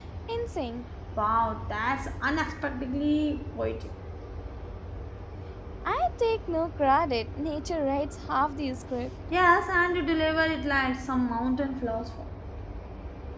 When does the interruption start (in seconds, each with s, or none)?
none